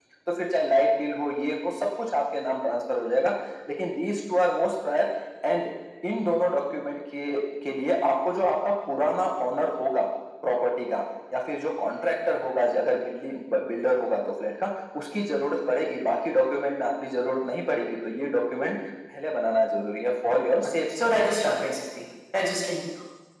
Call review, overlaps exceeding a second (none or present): none